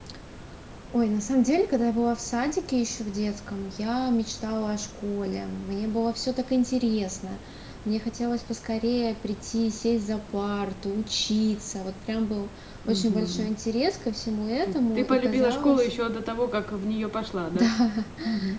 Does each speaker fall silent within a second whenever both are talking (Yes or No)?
No